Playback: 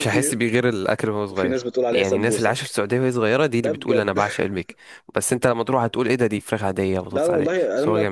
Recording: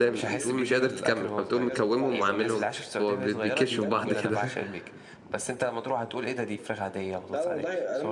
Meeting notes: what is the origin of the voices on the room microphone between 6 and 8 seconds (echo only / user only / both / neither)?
echo only